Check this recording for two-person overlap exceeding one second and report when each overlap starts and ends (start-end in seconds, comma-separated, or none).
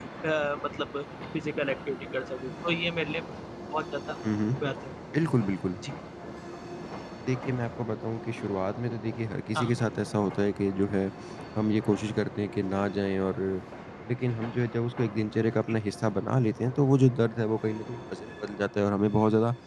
none